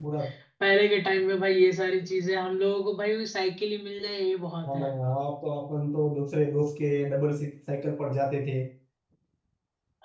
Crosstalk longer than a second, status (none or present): none